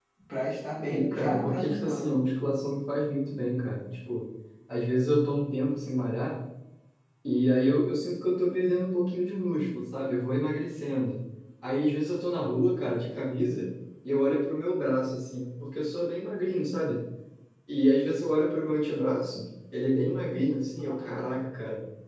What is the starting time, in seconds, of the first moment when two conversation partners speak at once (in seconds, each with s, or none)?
0.9 s